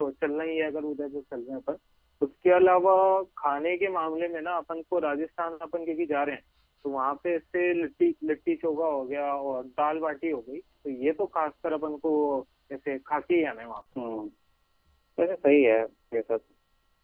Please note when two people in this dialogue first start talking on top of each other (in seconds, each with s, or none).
none